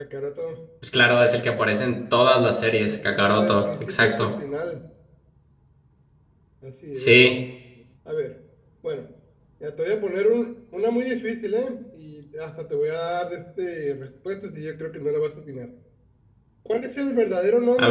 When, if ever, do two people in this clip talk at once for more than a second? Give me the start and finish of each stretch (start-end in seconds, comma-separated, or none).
2.8-4.3